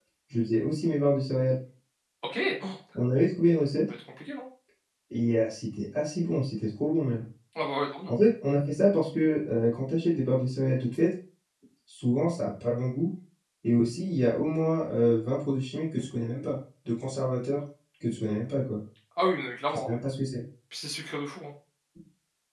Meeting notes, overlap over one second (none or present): none